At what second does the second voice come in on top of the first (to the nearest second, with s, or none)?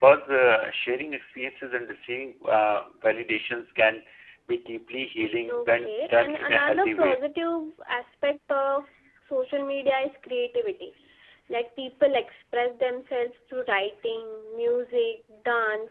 5 s